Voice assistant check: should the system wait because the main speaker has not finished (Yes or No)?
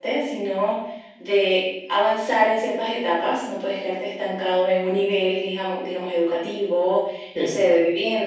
Yes